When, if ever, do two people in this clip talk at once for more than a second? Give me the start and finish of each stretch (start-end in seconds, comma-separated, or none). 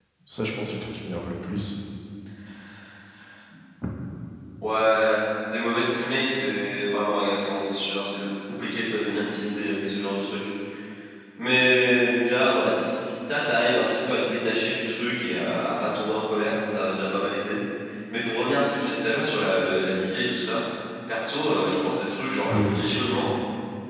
none